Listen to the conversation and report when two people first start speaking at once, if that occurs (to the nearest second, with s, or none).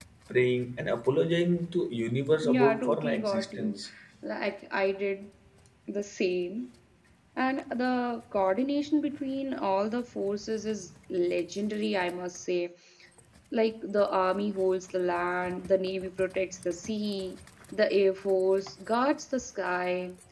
2 s